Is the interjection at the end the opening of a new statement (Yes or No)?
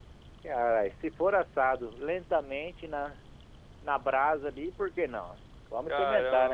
Yes